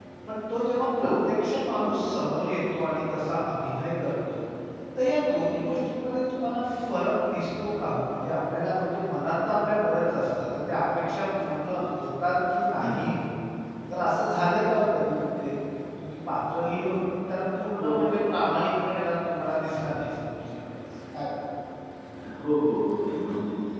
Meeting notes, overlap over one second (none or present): none